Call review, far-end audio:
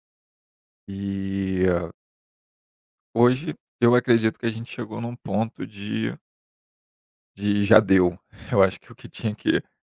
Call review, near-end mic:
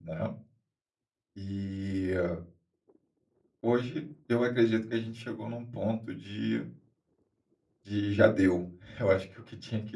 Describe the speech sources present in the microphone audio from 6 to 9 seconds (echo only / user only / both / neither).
echo only